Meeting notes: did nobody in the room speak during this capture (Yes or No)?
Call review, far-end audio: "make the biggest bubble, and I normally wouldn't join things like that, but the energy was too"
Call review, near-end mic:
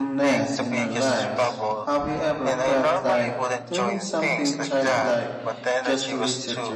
No